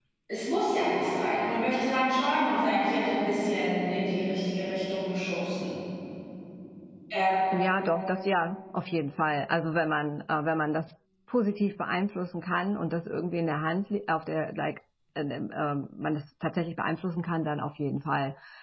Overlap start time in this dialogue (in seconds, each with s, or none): none